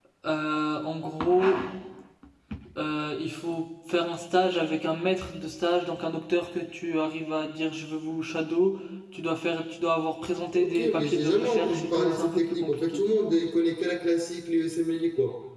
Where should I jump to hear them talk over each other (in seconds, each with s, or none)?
10.5 s